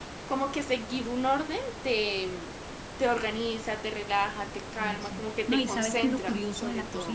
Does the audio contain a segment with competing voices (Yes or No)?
Yes